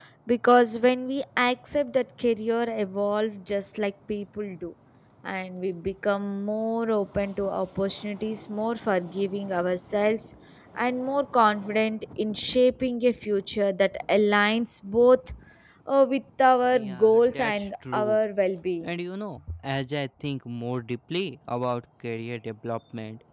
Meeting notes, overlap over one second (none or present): present